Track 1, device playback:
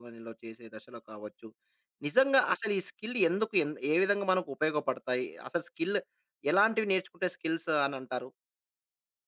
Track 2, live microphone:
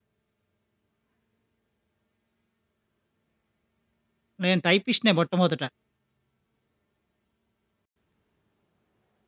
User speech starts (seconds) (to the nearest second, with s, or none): 4 s